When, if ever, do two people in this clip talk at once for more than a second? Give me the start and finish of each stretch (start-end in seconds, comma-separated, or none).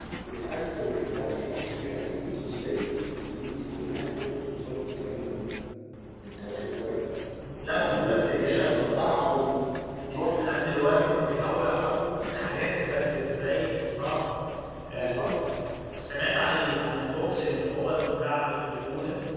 7.7-9.4